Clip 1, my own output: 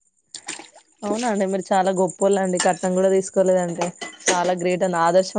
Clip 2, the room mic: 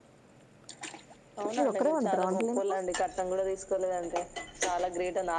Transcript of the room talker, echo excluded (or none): మీరు ఒకరే వండుతారా వంటలు ఇంట్లో